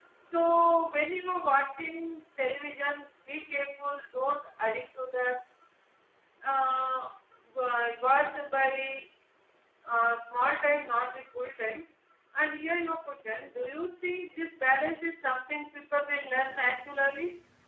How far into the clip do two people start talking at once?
none

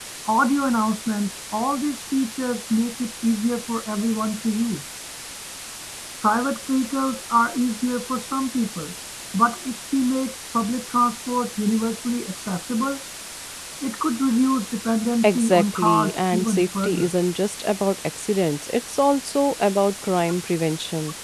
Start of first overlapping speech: 15.2 s

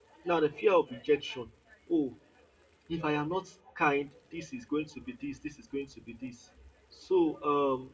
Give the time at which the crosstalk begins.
none

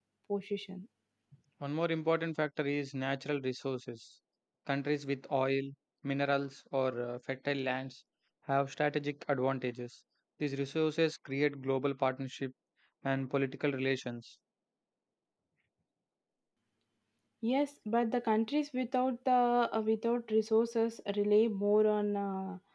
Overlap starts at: none

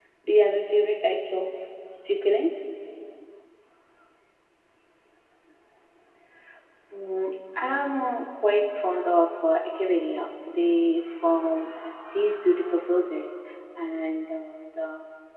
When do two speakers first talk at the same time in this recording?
none

